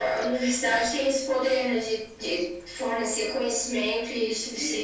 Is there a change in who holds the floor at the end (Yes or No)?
Yes